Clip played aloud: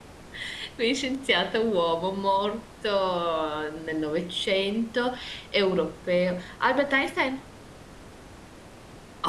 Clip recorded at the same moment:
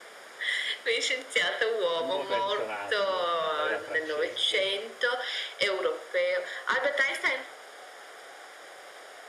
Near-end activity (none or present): present